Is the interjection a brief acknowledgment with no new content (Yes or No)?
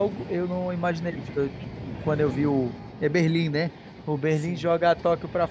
Yes